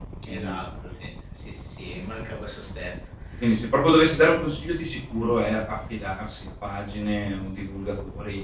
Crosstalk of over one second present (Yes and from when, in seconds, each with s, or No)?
No